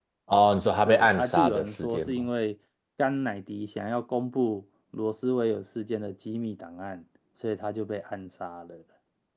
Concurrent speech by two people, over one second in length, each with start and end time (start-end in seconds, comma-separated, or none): 0.9-2.3